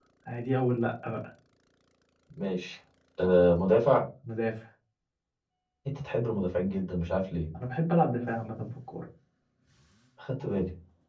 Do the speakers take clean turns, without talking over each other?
Yes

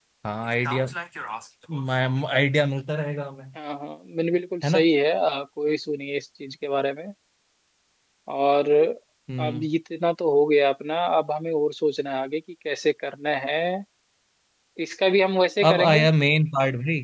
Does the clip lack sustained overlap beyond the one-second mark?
Yes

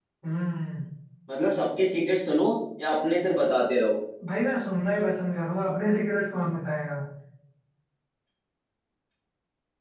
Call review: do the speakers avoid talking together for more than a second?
Yes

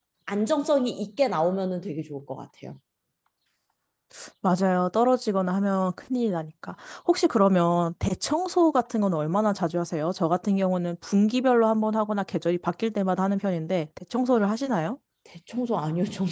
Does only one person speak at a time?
Yes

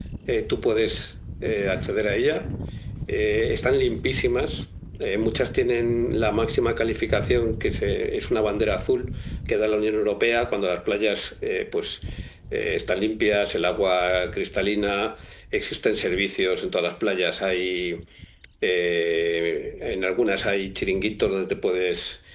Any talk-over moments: No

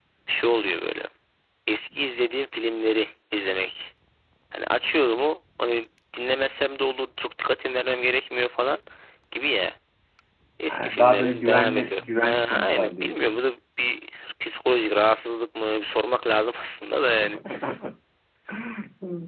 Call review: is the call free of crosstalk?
No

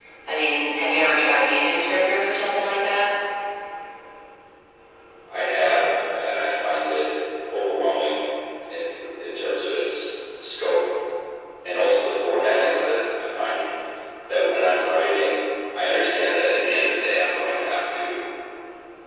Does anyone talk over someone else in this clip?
No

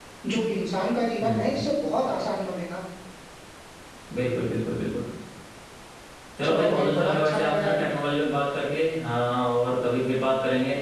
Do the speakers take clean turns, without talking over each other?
No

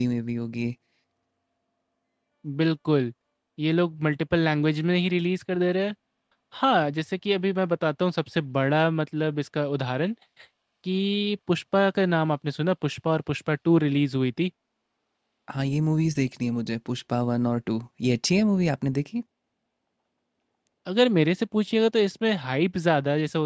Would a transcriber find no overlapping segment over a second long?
Yes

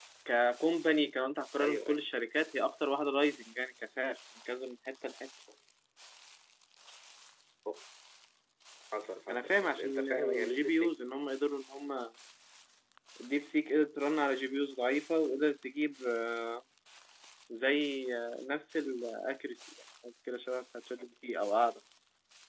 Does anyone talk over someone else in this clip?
Yes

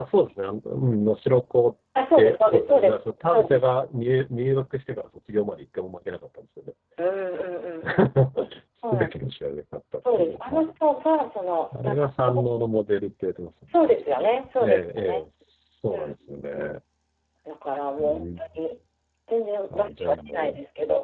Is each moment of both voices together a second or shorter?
No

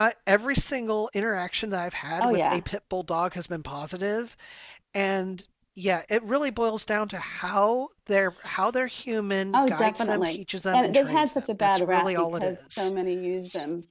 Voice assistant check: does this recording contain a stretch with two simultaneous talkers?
Yes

